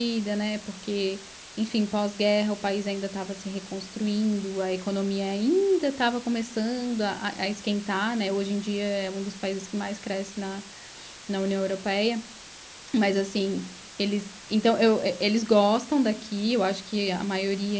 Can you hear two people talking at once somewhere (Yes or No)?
No